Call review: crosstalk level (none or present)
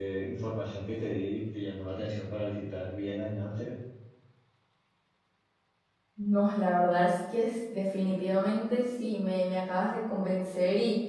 none